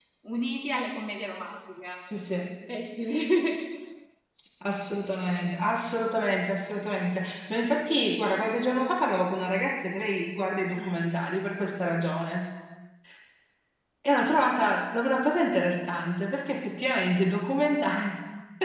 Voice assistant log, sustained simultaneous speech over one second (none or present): none